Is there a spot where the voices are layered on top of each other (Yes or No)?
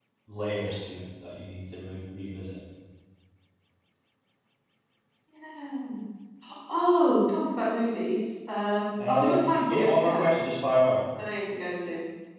Yes